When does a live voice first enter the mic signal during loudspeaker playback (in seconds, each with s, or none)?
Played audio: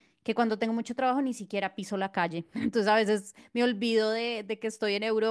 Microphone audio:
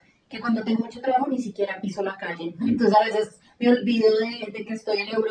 none